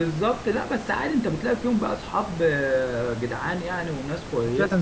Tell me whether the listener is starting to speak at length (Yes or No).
Yes